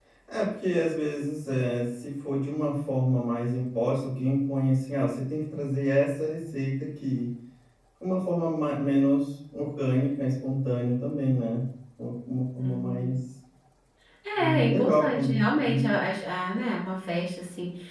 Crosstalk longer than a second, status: present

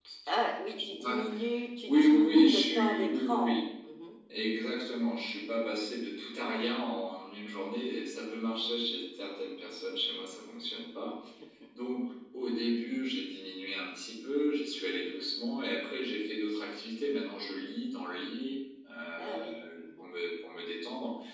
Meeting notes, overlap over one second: present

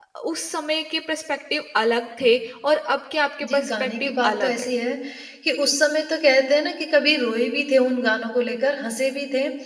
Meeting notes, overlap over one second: present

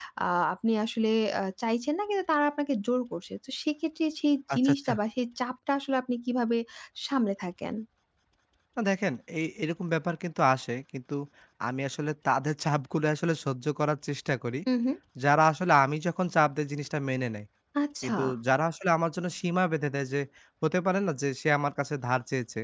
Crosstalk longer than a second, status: none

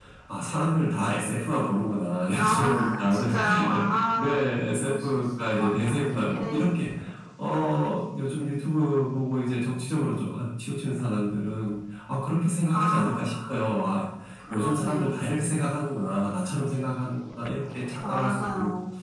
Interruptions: present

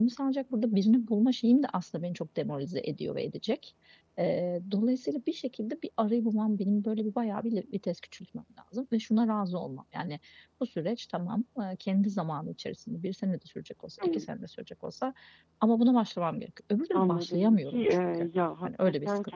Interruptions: present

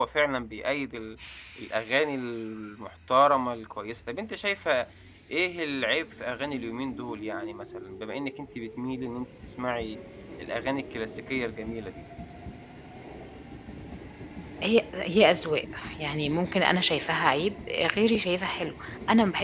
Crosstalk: none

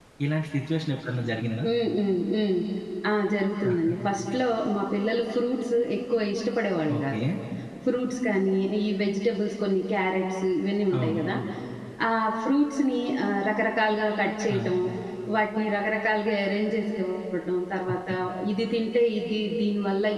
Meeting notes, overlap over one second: none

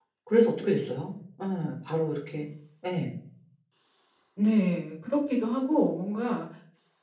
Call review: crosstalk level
none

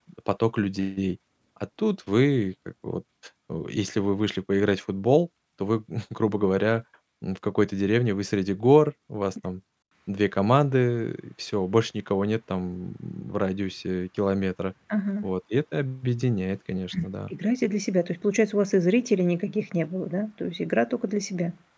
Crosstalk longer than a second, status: none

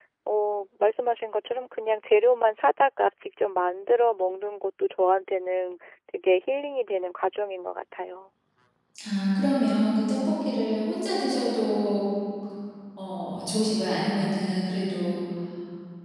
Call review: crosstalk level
none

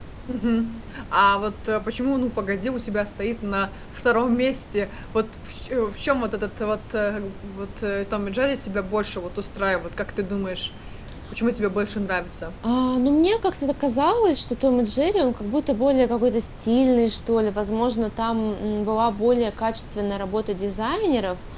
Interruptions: none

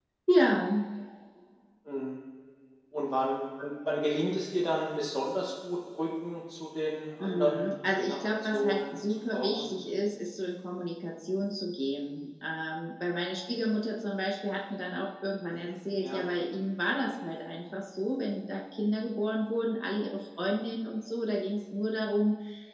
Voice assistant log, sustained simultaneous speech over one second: present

